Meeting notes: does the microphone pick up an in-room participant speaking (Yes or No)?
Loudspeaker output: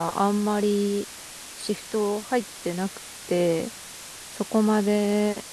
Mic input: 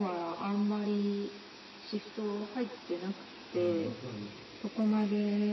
Yes